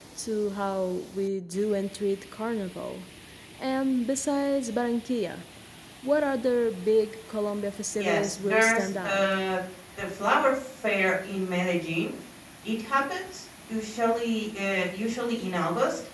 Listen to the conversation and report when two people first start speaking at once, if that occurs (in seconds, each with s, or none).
8.0 s